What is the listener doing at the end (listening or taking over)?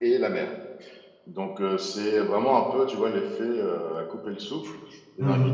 listening